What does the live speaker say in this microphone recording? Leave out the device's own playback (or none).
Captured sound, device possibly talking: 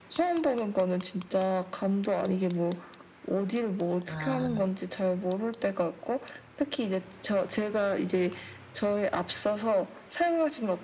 아.